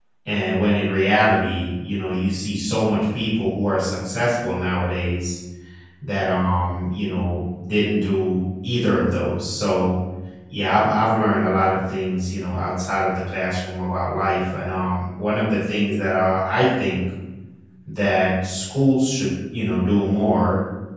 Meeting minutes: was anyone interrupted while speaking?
No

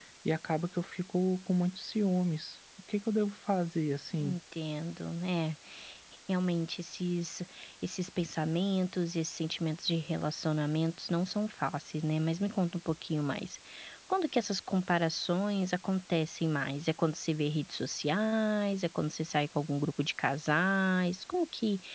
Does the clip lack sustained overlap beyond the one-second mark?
Yes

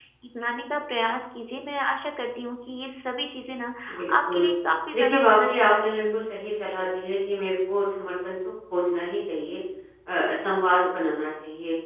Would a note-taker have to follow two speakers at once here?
Yes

